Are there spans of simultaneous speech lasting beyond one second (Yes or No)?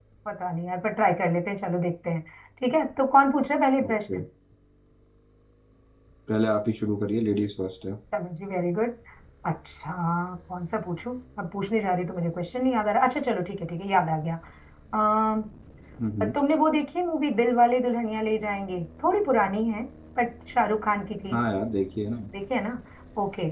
No